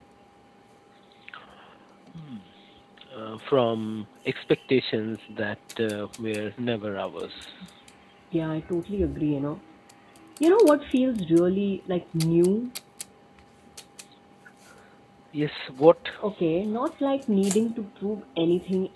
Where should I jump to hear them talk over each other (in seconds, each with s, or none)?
none